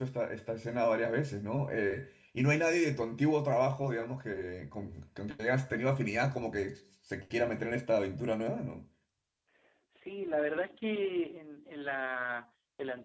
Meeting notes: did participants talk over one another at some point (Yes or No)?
No